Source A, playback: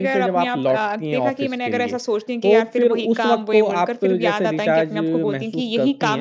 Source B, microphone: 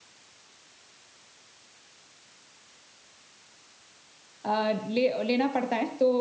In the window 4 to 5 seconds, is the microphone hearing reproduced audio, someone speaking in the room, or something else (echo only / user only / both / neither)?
user only